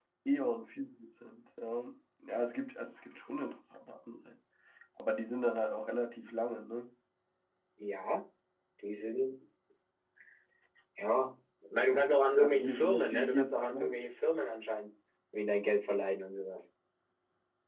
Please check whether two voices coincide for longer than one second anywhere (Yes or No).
Yes